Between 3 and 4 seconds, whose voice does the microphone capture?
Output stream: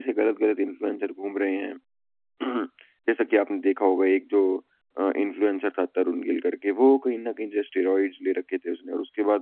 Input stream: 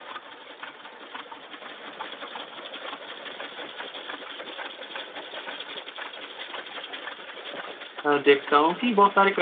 neither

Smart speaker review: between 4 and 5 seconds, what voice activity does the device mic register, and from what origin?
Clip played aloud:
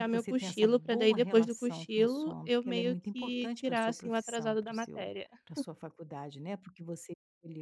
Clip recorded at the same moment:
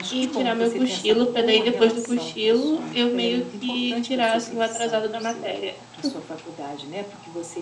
echo only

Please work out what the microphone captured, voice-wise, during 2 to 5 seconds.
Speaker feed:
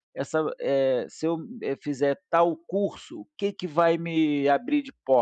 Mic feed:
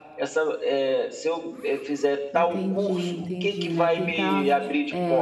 both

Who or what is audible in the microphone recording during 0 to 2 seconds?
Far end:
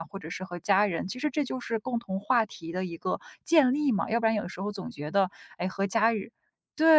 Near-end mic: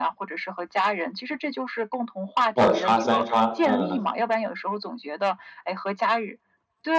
echo only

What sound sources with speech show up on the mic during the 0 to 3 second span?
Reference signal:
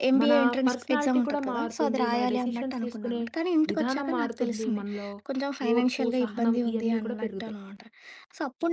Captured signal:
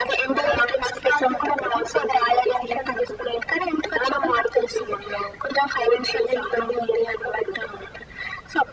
echo only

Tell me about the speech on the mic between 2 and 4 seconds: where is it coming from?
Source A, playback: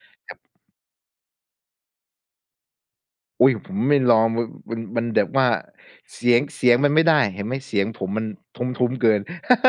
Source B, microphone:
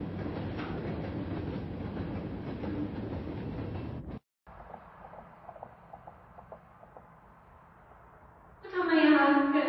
neither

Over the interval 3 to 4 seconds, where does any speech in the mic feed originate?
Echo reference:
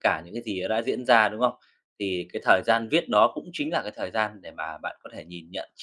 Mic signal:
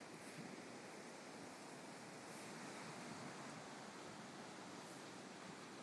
neither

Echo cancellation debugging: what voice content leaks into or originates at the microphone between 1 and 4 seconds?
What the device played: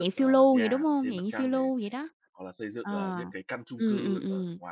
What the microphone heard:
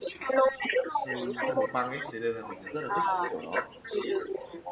both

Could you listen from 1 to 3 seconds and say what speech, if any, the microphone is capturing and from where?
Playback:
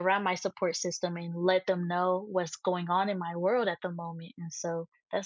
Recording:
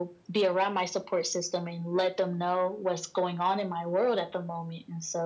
echo only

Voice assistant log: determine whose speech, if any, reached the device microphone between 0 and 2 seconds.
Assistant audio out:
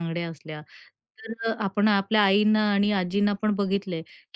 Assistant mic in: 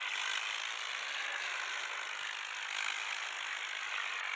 neither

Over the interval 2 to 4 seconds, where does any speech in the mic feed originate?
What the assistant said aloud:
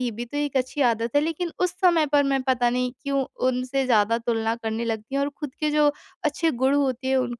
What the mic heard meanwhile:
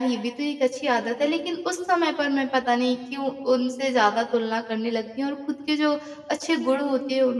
echo only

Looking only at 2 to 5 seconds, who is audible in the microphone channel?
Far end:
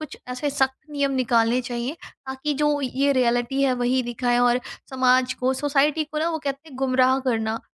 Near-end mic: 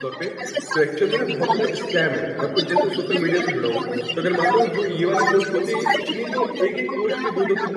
both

